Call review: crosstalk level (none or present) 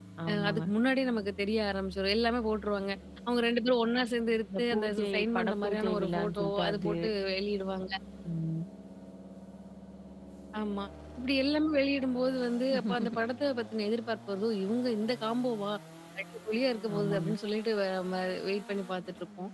present